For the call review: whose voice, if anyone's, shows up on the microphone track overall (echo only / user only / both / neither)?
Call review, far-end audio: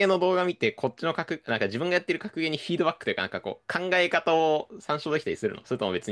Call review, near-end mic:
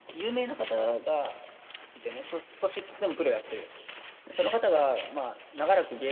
user only